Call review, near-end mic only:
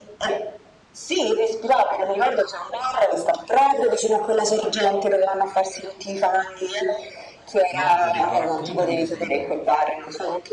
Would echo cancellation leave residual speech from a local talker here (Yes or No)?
Yes